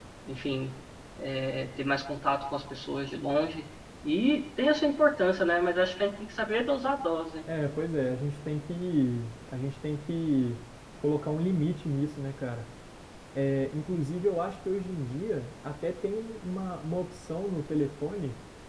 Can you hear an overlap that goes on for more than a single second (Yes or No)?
No